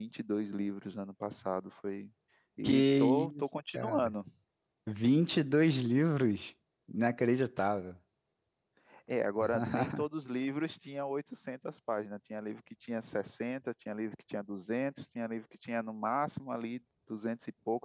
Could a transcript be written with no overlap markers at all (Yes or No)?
No